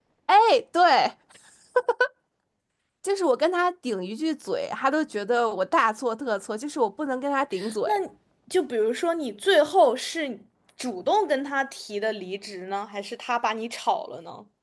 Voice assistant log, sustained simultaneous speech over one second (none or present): none